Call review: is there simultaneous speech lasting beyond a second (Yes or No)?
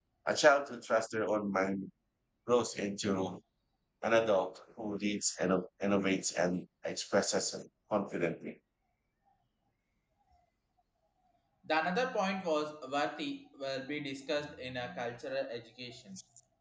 No